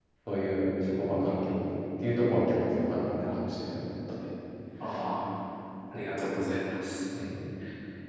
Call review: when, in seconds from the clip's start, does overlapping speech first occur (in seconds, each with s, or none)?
none